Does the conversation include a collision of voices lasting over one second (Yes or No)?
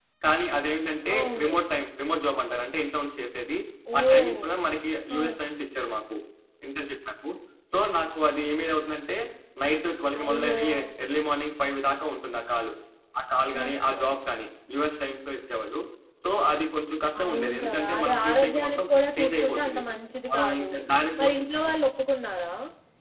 Yes